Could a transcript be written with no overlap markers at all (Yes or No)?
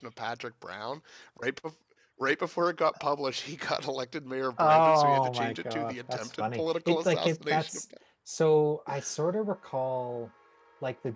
No